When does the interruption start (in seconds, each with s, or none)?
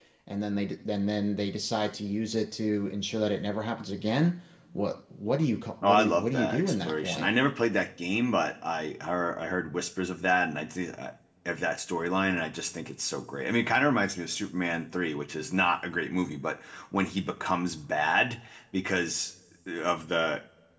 5.8 s